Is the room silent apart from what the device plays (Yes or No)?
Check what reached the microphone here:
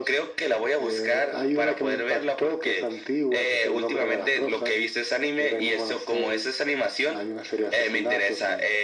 Yes